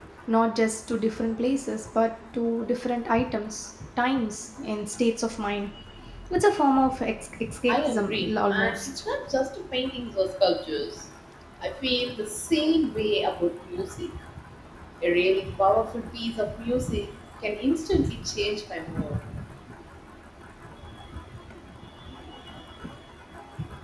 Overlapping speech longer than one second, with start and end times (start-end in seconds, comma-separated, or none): 7.7-8.9